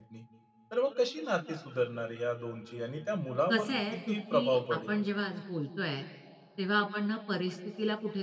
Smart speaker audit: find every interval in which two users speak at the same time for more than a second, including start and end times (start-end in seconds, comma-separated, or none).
3.5-4.9